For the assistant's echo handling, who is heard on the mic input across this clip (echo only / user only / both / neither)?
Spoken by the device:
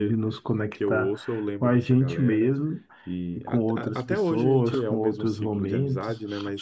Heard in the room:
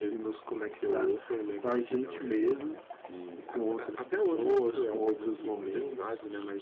echo only